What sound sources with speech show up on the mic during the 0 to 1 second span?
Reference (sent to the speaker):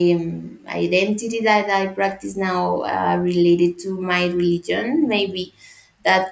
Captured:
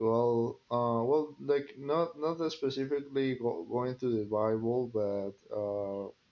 user only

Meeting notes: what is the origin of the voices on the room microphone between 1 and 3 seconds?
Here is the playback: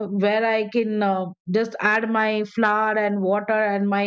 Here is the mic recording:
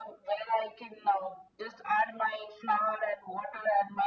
echo only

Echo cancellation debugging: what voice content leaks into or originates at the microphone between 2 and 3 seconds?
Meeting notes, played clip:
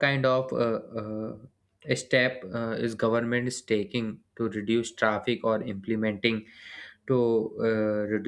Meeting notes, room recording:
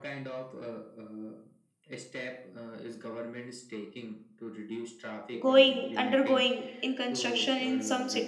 echo only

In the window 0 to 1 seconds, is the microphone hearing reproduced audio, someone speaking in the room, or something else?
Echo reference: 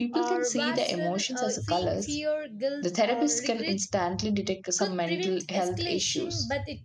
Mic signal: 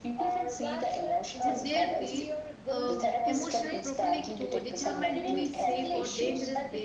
echo only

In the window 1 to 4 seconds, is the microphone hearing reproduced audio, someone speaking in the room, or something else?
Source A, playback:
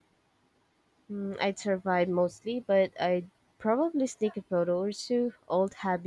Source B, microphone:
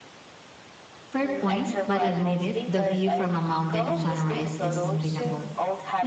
both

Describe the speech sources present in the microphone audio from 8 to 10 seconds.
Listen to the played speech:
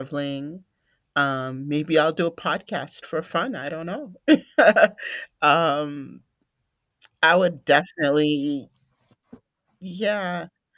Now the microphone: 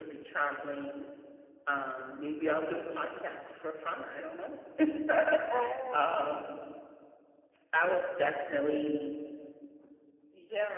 echo only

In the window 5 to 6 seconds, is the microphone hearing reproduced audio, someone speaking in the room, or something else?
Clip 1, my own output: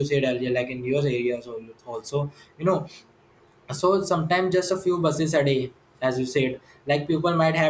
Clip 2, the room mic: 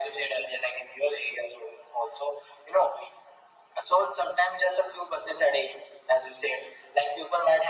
echo only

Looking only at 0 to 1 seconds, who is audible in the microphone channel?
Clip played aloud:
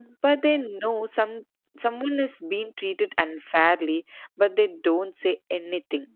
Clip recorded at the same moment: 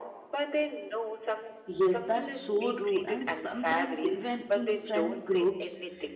echo only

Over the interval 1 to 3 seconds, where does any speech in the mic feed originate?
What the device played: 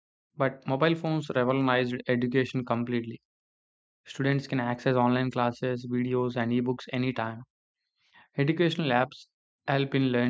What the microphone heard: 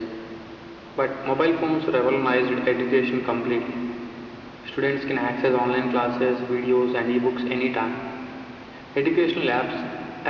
echo only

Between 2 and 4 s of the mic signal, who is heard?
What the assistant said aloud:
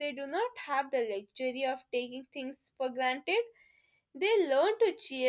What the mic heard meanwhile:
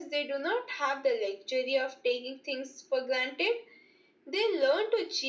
echo only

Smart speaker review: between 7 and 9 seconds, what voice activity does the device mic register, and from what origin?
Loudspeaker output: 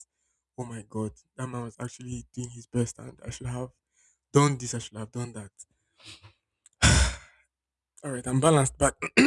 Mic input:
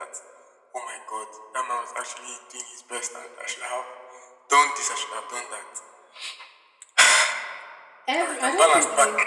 both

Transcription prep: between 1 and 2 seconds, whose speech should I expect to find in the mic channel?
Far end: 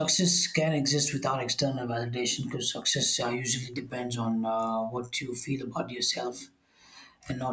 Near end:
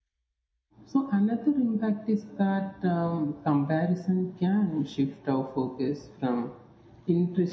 user only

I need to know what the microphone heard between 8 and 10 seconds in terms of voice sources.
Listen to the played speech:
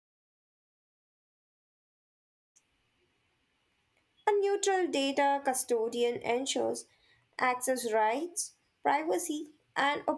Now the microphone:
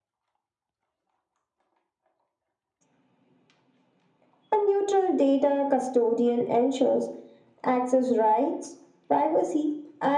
echo only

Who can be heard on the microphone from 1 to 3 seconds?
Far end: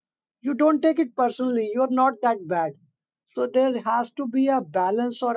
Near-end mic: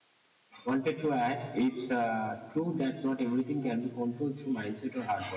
user only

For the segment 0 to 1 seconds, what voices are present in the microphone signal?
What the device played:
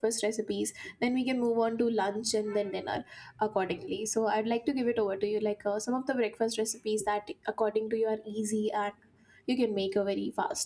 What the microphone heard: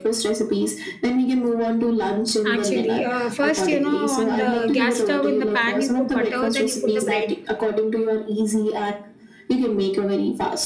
echo only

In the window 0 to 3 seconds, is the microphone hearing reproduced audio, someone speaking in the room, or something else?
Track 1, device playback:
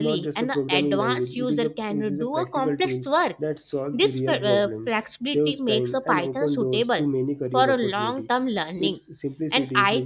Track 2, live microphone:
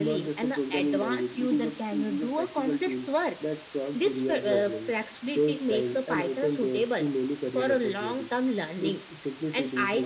echo only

